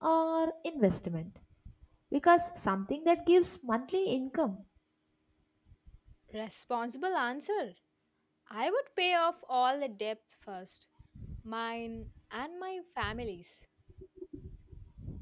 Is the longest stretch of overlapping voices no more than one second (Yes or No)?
Yes